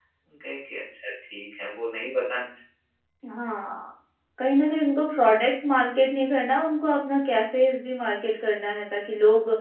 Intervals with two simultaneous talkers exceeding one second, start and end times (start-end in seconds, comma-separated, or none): none